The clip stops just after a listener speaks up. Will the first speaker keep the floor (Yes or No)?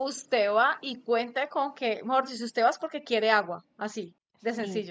No